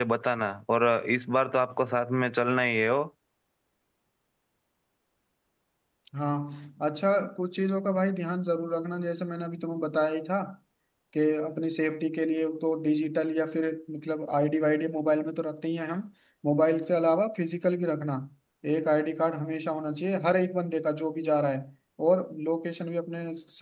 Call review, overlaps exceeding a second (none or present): none